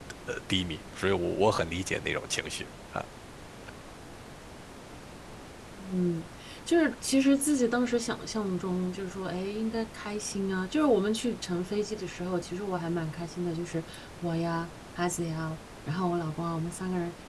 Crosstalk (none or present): none